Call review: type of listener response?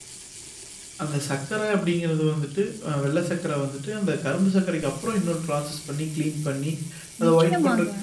listening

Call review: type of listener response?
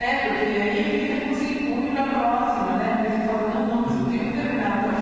listening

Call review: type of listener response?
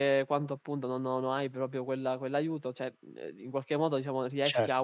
taking over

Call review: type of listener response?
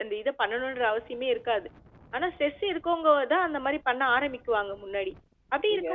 listening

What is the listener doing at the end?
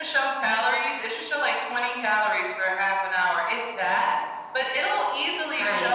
listening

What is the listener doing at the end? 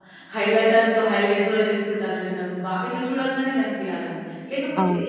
listening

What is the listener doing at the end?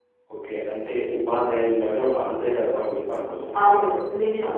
taking over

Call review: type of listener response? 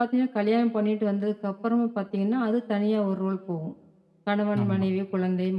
listening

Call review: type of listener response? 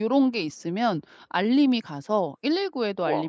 listening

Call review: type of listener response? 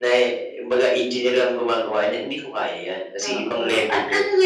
taking over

